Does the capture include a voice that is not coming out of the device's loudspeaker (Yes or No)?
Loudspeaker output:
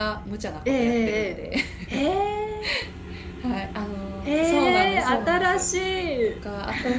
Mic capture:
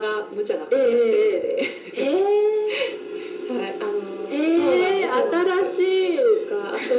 No